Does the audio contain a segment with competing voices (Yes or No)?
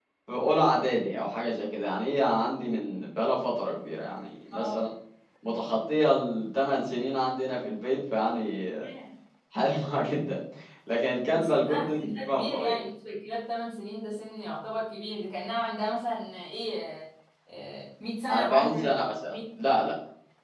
Yes